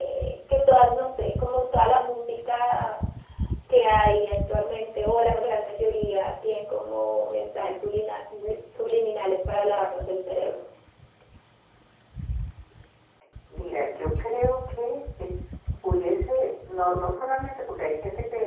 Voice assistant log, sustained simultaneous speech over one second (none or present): none